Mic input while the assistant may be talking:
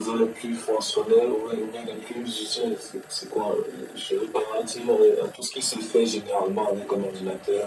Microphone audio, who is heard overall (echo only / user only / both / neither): echo only